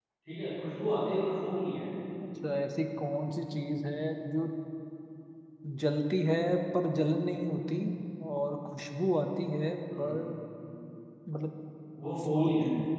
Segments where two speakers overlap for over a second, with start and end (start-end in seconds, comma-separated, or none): none